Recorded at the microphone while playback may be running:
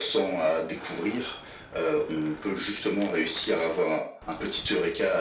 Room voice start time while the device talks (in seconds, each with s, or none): none